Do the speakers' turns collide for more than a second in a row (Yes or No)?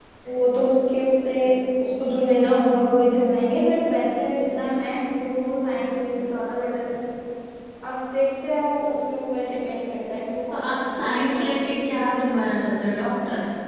Yes